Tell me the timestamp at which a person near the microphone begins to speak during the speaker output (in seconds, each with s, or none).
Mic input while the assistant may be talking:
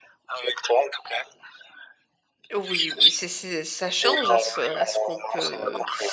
2.5 s